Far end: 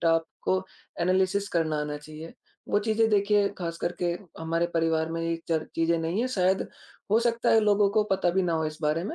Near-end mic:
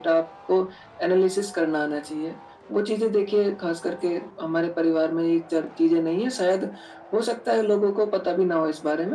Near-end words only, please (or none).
none